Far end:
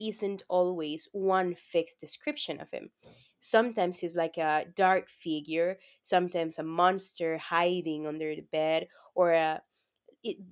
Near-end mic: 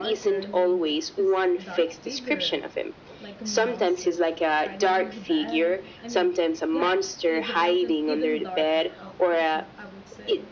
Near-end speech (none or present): present